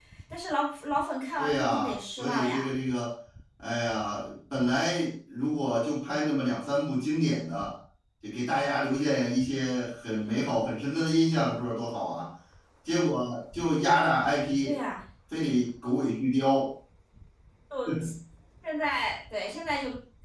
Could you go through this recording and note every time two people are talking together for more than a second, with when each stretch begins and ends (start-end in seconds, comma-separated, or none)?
1.4-2.7